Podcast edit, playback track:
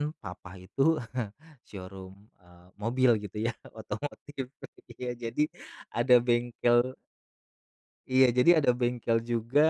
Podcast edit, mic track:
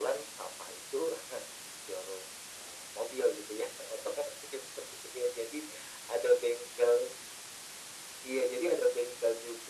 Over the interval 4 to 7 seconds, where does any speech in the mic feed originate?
echo only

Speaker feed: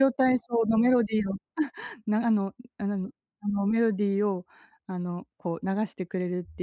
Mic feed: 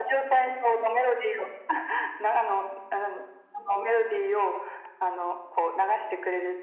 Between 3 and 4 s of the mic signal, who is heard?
echo only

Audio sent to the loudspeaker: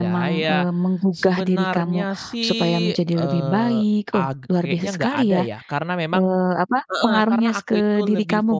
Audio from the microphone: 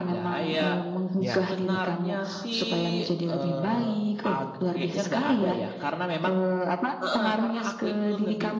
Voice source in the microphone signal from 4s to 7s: echo only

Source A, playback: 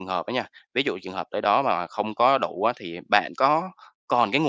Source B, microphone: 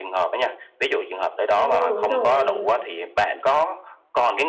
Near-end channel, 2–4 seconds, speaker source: both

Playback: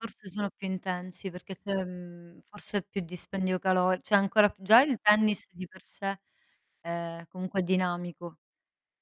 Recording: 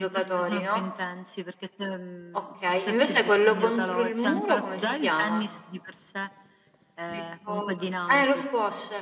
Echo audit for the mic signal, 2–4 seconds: both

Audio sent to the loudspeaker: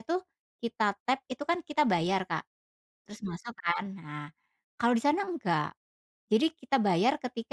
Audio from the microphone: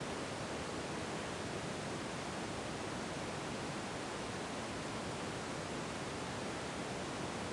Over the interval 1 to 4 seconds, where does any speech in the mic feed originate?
neither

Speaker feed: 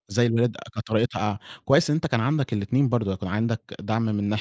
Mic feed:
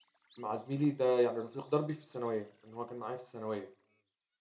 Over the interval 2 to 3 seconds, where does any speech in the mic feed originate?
user only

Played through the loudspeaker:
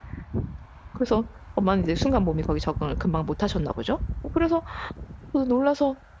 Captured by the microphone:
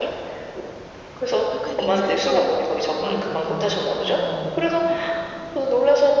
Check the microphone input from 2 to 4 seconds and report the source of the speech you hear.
both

